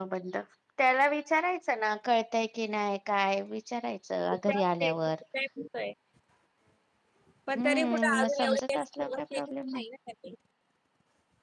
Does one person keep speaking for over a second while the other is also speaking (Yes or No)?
Yes